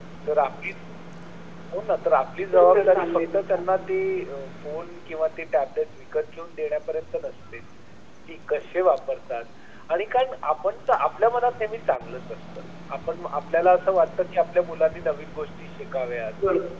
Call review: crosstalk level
present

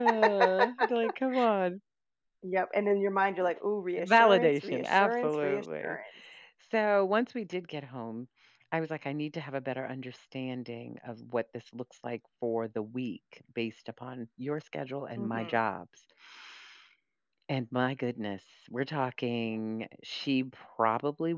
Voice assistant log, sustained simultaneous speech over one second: present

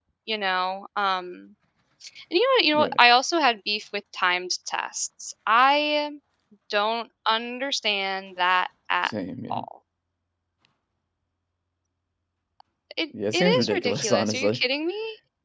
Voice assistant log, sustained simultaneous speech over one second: present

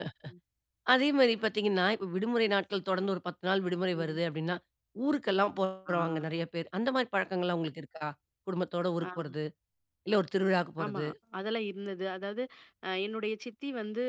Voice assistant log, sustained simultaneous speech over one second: none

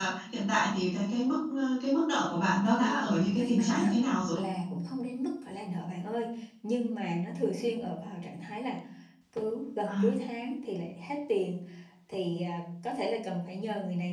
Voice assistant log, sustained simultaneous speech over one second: present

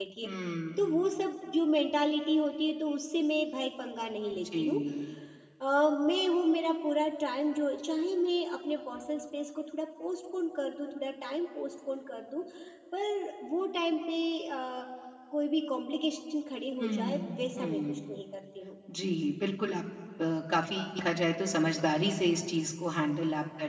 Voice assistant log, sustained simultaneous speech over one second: present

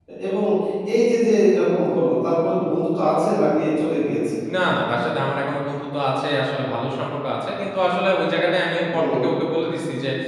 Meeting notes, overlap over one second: none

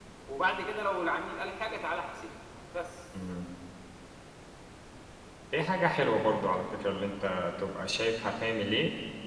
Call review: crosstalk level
none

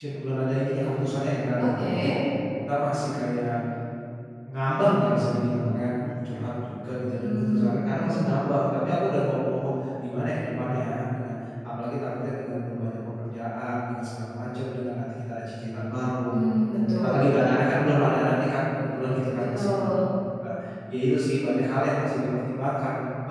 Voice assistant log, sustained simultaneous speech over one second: present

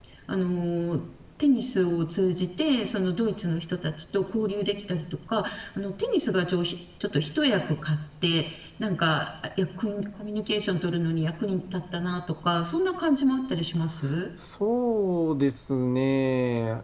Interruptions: none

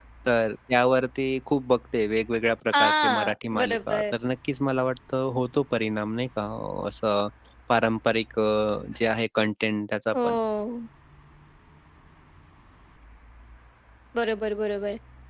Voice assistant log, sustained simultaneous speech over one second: present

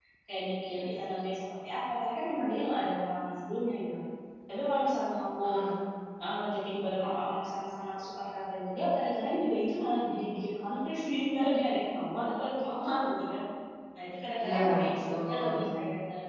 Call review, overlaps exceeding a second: present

